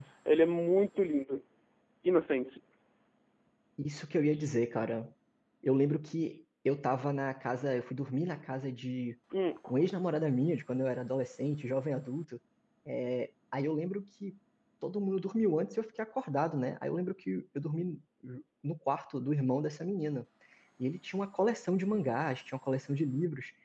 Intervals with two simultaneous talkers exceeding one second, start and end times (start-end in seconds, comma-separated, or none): none